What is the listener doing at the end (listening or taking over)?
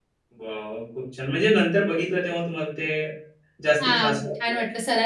taking over